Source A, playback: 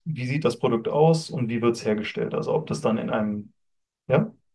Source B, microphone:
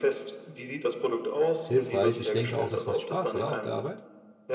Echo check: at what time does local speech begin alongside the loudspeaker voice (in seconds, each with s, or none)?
1.6 s